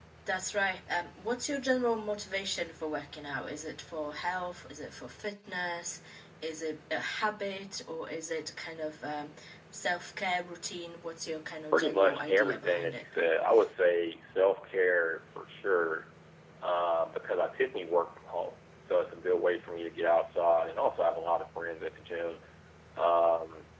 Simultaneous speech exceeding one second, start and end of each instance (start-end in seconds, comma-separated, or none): 11.7-13.2